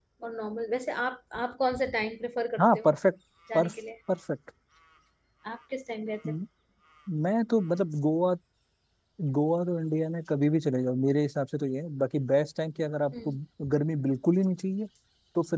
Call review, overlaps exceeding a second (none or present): none